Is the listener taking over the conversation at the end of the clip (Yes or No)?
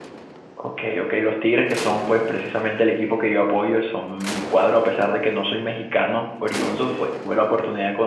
No